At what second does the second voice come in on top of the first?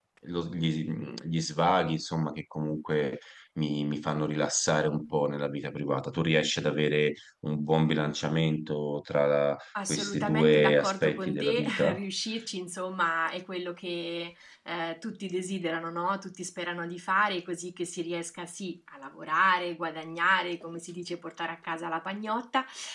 10 s

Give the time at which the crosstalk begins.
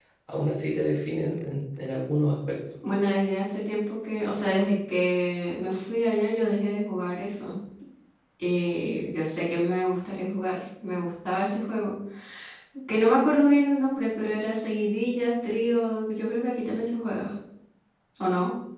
none

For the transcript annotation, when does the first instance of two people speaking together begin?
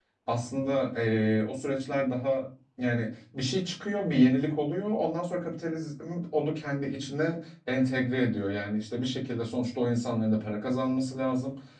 none

